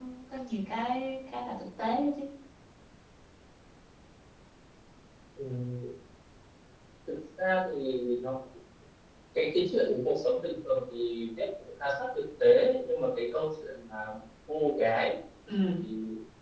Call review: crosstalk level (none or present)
none